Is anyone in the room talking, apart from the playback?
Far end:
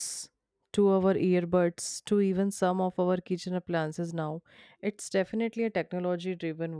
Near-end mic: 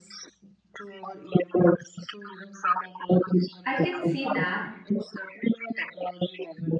Yes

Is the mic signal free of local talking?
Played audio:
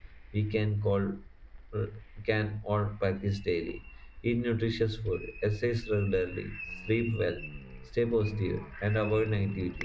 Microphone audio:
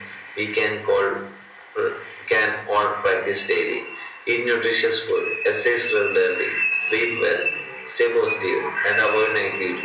Yes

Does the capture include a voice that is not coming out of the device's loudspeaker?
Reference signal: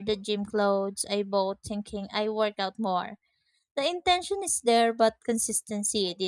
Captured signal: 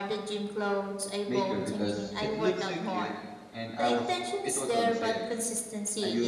Yes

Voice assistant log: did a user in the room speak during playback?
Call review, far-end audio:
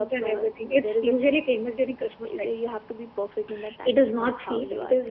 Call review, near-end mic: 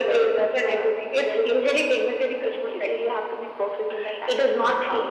No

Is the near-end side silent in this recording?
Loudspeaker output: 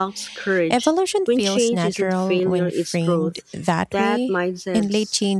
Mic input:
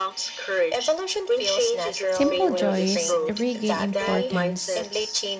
No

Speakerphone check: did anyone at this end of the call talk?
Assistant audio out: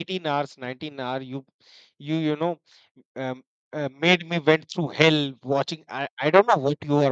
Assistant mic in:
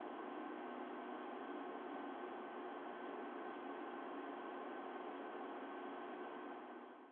No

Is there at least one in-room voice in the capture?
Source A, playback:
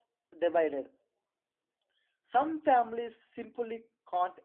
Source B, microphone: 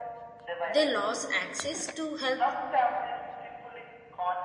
Yes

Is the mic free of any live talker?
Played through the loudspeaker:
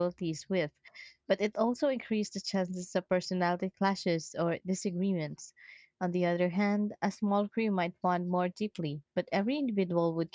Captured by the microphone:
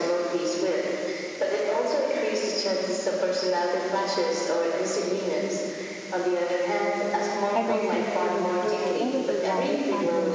No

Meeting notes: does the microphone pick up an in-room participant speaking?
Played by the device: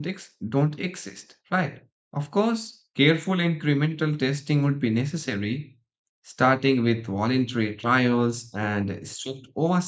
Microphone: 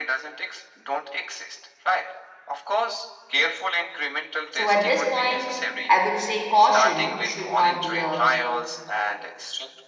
Yes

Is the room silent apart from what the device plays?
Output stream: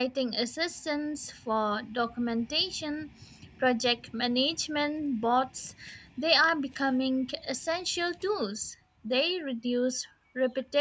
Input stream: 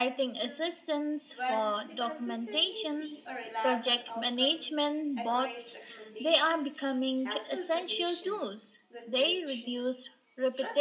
No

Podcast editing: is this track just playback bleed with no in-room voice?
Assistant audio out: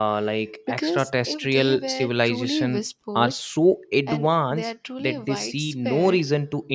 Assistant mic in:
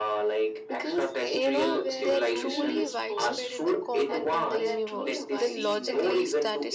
No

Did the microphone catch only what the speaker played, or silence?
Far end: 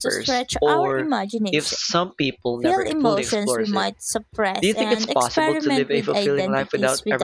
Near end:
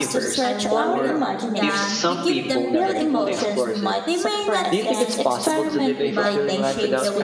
No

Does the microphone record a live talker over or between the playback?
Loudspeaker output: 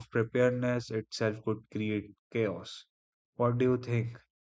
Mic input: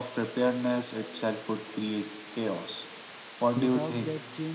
Yes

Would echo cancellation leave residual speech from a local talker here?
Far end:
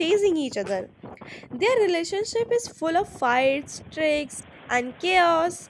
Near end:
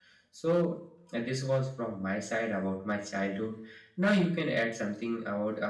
Yes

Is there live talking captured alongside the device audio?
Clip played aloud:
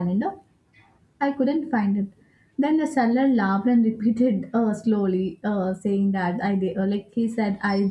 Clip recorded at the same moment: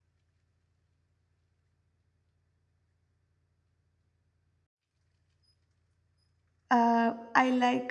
Yes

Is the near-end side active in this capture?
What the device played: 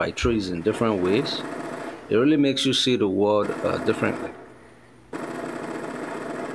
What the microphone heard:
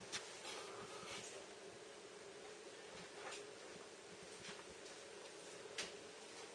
No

